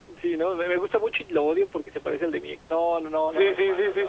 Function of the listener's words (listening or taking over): taking over